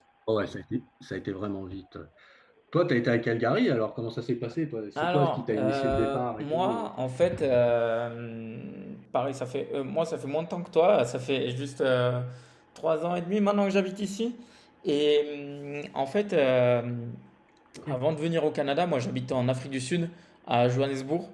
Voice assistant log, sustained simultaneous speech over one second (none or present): present